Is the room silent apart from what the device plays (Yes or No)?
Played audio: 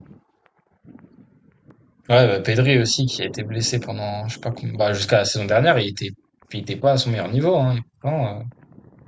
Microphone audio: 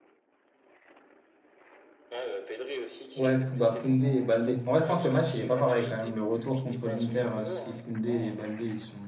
No